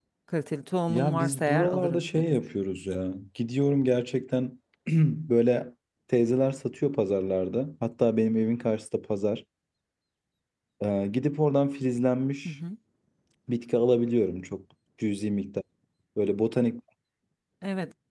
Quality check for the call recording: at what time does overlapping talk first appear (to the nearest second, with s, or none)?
1 s